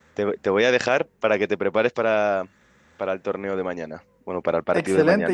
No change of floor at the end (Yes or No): No